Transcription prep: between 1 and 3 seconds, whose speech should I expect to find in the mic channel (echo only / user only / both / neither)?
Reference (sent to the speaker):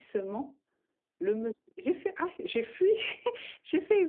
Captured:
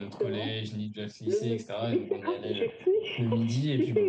both